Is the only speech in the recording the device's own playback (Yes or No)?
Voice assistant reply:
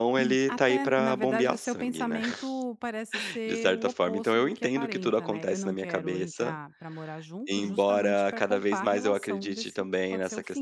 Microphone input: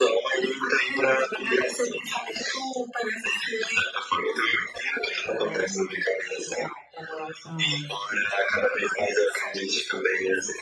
No